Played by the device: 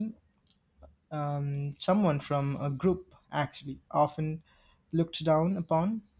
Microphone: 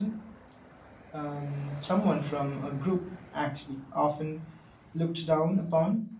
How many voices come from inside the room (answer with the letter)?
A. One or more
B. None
B